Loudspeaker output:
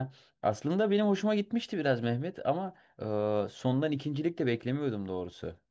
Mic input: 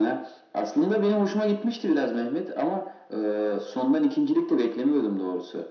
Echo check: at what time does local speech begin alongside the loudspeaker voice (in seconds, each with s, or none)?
none